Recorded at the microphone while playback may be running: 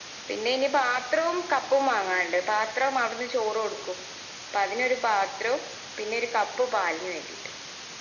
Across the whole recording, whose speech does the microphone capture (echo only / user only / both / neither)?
echo only